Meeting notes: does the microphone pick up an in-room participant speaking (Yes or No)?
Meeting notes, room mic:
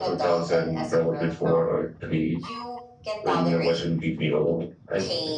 Yes